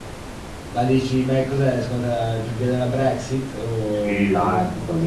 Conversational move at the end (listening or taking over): taking over